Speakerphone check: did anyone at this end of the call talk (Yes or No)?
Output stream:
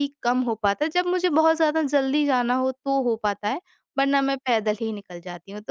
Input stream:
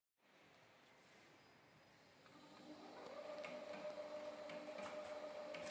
No